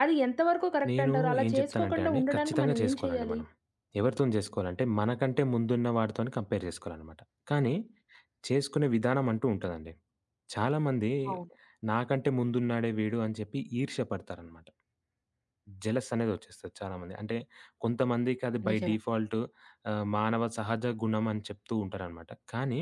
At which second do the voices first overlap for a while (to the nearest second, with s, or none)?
1 s